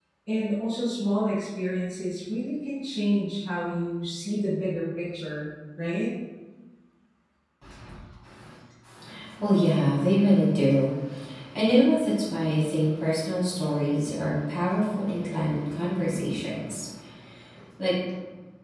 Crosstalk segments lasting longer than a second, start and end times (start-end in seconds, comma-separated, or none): none